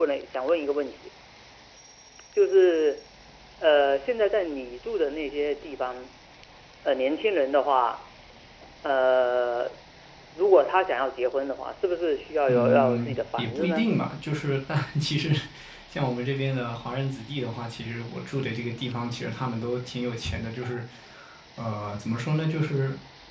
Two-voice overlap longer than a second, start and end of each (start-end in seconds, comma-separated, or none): 12.5-13.9